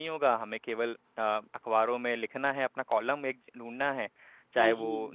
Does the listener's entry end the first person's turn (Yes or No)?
No